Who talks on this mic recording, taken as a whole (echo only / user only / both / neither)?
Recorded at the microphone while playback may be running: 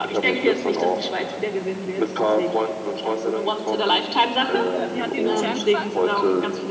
both